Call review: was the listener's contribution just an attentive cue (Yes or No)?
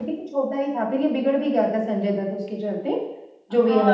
No